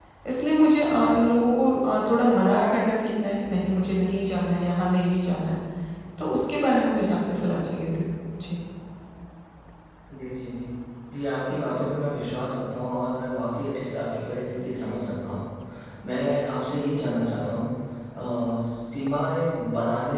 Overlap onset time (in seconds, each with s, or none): none